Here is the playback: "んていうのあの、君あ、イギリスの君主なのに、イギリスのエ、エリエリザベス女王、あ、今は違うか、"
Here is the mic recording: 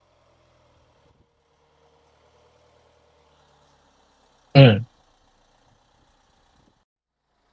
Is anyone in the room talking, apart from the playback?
Yes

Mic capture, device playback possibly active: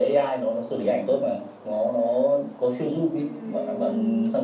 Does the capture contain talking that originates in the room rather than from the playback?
Yes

